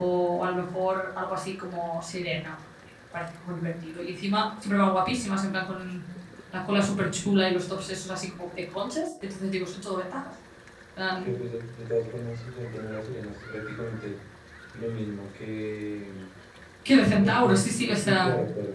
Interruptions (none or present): present